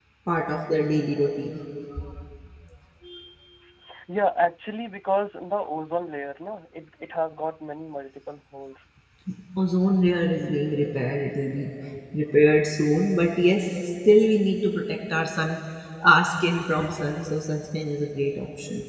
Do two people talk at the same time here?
No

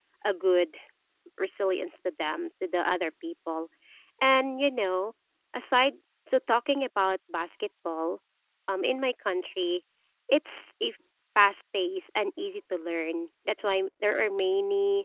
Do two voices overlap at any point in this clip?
No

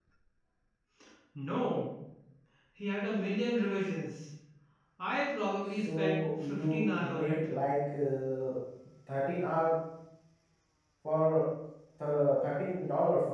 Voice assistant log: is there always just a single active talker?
No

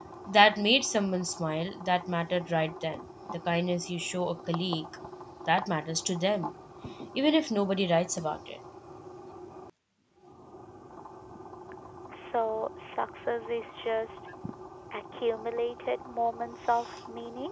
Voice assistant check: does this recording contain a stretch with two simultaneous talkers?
No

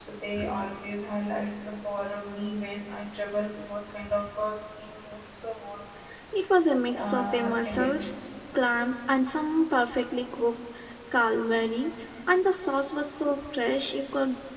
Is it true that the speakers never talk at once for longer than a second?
No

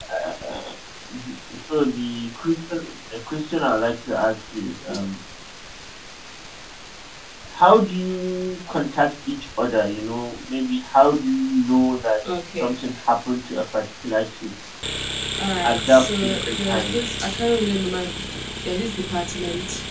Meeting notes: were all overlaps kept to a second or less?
No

